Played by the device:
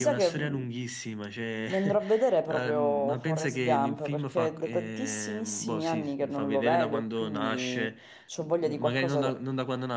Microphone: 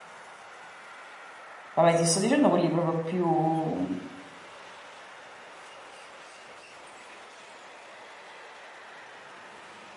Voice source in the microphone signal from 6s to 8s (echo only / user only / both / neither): neither